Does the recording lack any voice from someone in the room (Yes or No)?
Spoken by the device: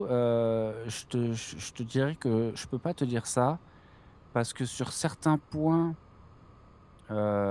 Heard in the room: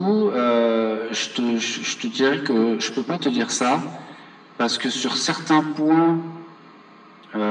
Yes